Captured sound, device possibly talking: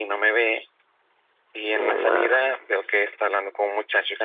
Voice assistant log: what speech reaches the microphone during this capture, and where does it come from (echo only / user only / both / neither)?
both